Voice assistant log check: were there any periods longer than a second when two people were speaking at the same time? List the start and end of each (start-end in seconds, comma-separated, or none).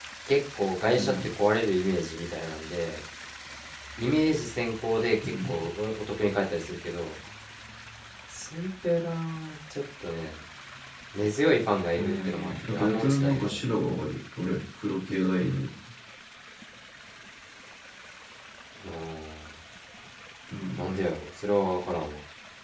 12.0-13.6